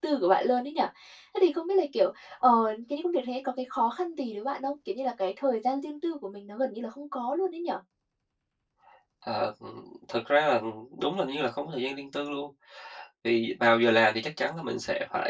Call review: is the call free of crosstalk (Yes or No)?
Yes